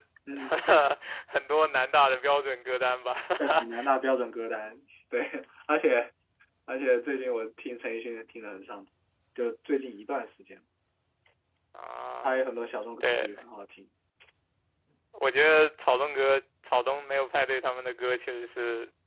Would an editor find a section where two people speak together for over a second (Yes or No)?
No